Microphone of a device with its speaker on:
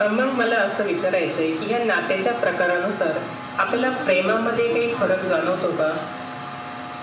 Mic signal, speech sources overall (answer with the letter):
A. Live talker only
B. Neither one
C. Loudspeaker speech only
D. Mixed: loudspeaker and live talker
D